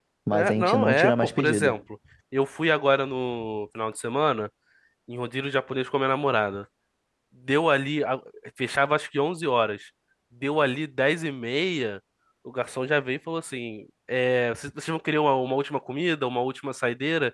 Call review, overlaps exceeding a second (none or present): present